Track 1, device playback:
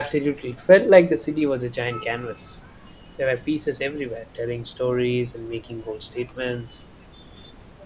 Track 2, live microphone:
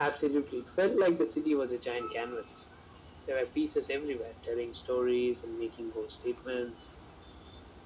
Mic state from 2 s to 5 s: echo only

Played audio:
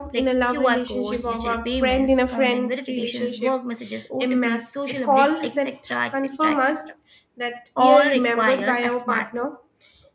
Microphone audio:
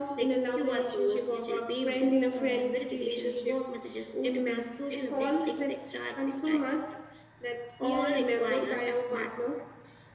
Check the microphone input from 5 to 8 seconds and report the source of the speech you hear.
echo only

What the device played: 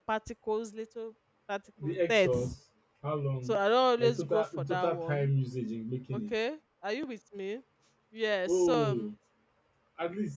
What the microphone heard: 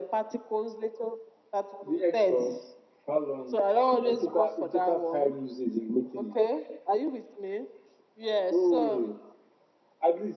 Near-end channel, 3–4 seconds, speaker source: echo only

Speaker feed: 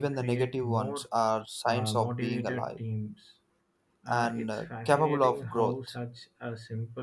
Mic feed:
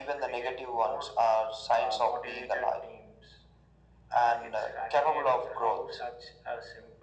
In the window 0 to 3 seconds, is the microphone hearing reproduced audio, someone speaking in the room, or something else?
echo only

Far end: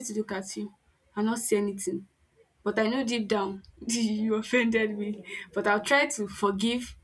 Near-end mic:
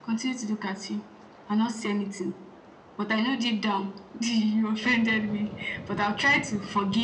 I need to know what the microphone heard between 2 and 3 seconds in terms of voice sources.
echo only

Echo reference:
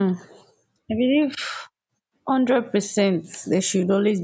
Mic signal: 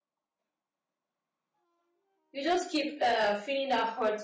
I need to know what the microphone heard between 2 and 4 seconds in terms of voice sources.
user only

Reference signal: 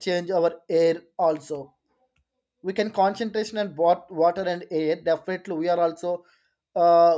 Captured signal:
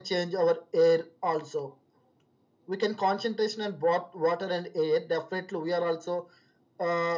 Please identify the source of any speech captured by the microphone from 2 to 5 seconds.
echo only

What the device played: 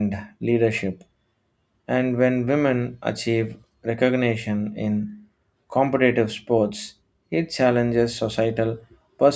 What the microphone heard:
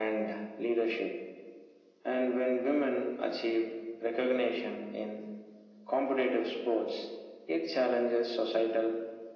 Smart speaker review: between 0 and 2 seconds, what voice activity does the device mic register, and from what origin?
echo only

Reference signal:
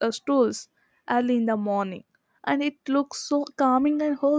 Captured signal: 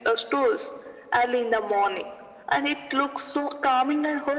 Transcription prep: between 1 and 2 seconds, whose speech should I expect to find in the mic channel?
echo only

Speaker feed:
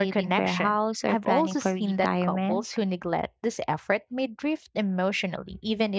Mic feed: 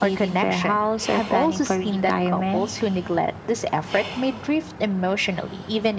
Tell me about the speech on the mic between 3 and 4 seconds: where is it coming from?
echo only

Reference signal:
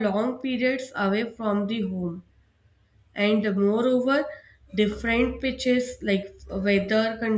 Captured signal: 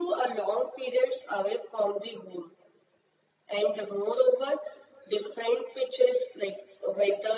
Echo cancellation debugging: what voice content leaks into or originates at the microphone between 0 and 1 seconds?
echo only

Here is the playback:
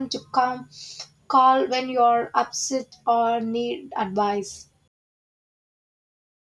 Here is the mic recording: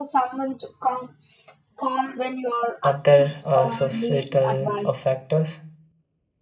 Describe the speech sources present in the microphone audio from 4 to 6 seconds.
both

